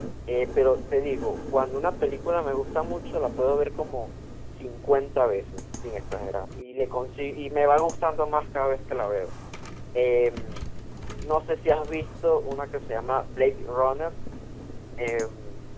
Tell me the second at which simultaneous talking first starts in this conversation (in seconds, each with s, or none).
none